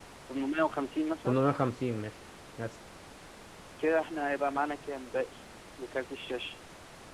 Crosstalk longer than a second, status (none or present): none